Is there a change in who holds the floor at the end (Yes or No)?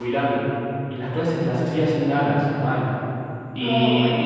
No